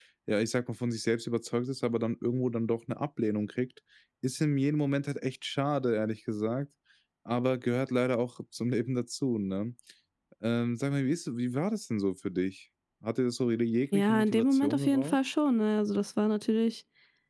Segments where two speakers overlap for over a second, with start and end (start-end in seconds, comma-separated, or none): 13.9-15.2